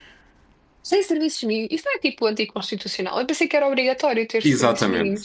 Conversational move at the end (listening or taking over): taking over